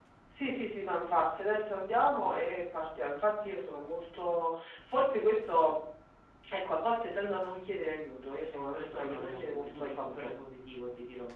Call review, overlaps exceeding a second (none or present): present